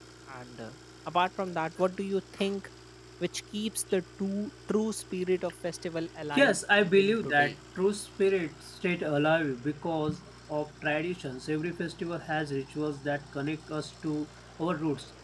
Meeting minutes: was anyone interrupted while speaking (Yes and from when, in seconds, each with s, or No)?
Yes, from 6.3 s